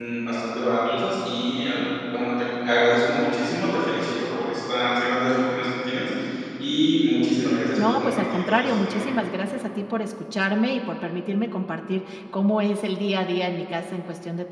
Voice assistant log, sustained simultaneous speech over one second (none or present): present